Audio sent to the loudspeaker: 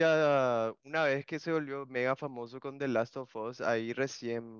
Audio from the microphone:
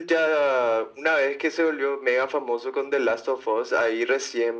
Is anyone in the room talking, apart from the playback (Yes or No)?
No